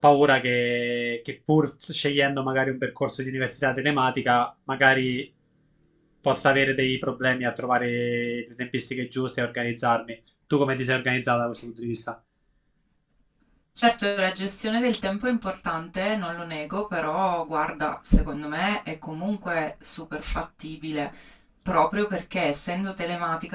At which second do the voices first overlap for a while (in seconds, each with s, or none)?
none